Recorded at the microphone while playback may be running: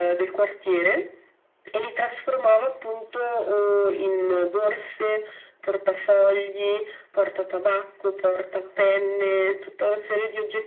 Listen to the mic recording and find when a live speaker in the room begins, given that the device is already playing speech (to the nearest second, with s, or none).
none